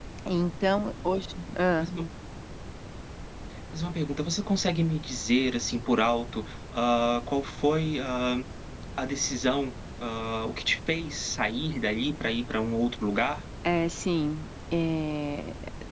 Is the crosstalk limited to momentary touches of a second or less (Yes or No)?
Yes